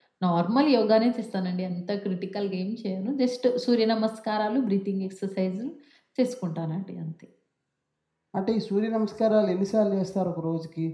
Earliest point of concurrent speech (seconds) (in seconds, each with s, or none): none